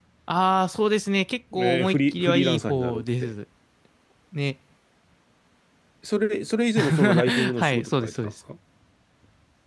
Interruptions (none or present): present